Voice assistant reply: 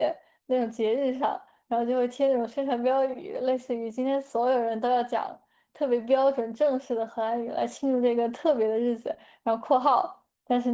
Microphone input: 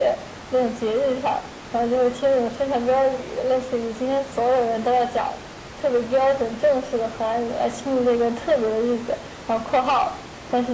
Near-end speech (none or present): none